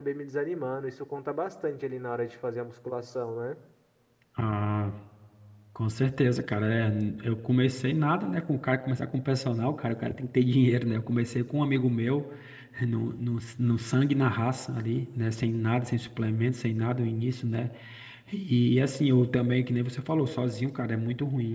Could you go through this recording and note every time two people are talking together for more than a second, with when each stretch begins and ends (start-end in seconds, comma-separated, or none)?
none